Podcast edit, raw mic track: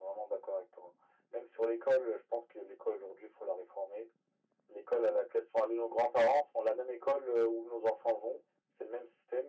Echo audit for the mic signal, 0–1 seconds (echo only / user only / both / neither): echo only